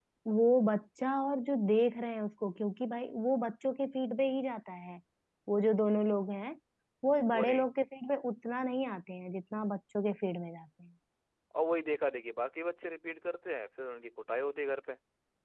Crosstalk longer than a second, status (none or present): none